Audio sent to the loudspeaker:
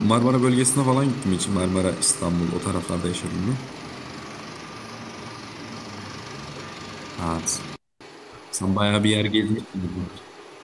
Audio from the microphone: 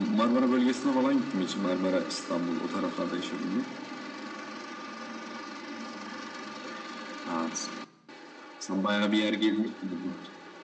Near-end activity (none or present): none